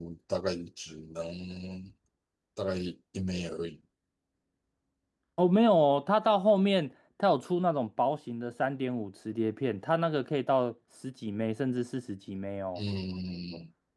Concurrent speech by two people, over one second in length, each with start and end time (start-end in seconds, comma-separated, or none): none